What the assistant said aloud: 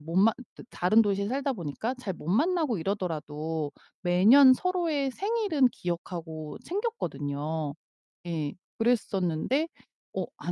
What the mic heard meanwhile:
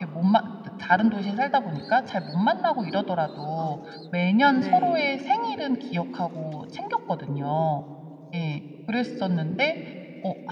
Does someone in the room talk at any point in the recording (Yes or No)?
Yes